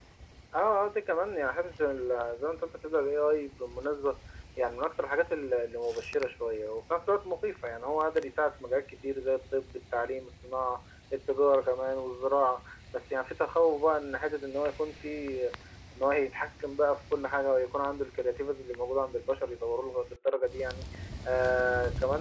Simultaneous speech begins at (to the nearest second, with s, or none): none